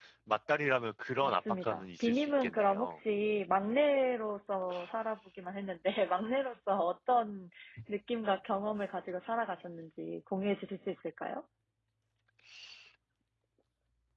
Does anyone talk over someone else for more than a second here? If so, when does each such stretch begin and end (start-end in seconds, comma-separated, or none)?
1.2-3.0